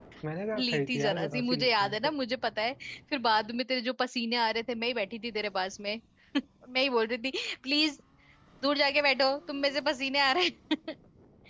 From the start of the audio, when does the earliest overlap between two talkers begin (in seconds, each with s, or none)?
0.6 s